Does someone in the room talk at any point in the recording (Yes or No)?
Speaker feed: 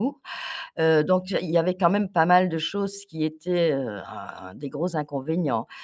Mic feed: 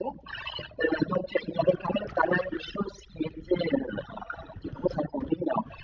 No